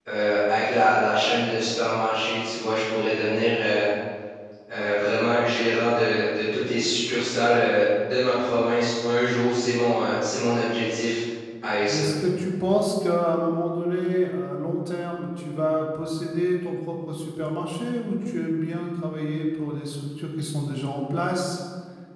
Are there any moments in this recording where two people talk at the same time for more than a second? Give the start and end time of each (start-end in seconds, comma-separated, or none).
none